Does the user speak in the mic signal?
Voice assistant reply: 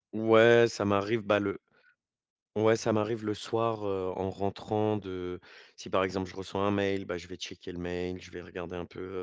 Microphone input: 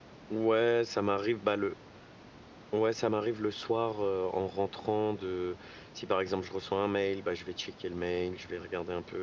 No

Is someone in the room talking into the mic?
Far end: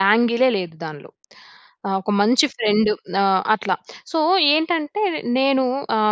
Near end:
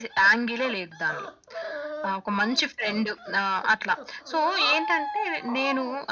No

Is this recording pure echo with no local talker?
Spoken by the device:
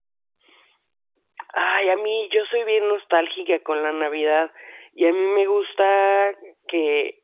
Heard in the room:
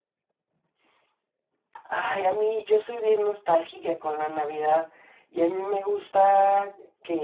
Yes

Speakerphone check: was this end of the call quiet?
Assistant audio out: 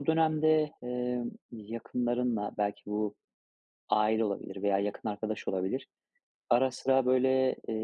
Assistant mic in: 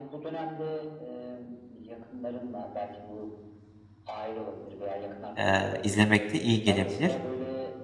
No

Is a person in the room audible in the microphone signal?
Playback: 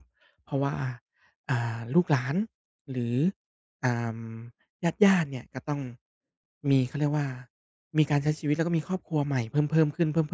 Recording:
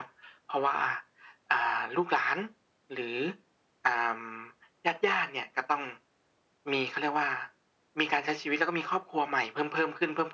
No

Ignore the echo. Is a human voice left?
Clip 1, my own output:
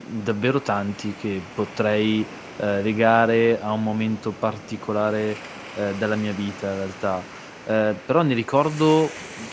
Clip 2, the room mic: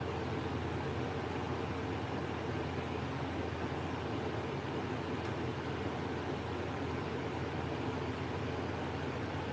No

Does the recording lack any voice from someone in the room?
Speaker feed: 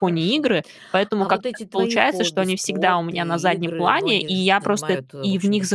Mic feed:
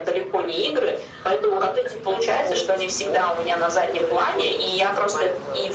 Yes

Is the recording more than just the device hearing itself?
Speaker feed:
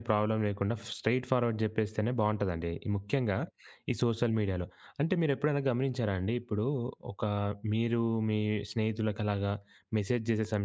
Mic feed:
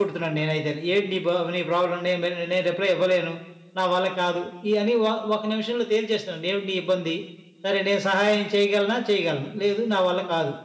Yes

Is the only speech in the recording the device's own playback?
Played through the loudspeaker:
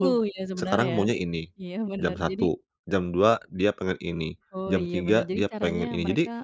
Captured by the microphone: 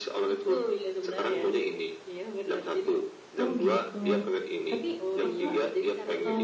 No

